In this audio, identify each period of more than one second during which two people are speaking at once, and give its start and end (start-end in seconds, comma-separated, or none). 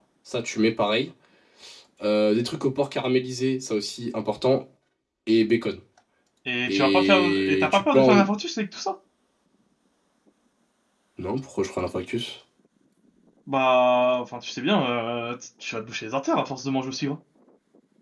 6.7-8.2